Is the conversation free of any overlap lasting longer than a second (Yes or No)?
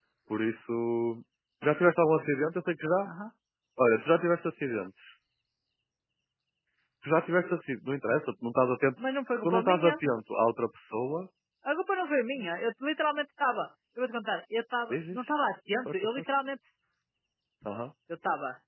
Yes